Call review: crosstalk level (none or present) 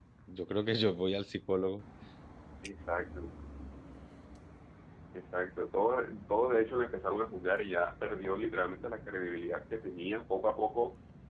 none